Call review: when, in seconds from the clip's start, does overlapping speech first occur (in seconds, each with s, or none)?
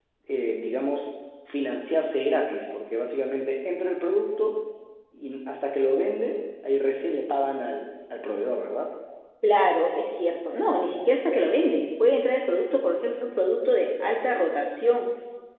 none